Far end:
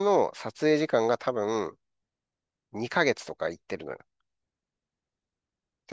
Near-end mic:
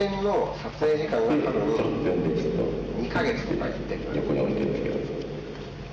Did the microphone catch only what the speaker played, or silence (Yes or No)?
No